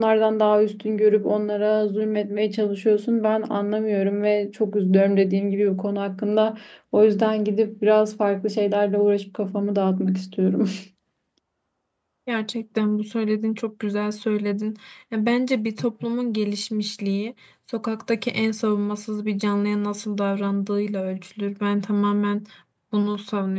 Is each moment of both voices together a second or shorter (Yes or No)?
Yes